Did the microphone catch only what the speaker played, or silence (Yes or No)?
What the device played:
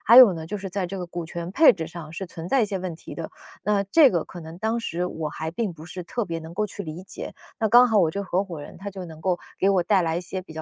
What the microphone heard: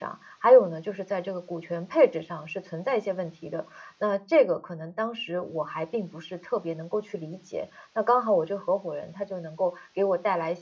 Yes